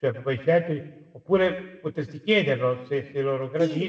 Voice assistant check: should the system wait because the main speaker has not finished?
No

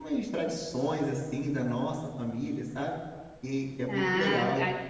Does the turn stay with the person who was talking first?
No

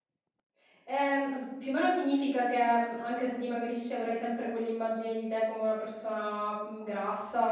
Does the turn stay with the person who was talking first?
No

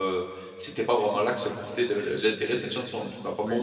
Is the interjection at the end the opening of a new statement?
Yes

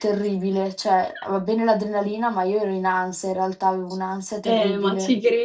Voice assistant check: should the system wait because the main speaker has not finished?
No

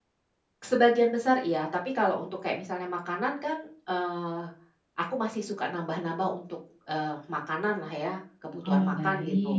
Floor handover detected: Yes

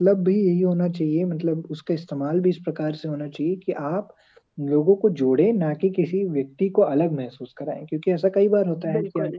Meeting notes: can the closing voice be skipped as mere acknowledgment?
Yes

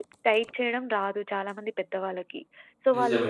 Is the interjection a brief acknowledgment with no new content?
Yes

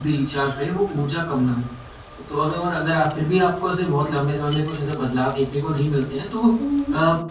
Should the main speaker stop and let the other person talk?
No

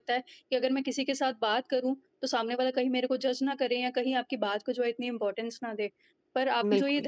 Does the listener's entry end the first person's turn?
No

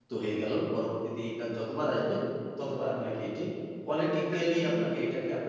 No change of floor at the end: Yes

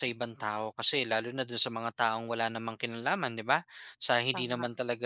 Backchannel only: Yes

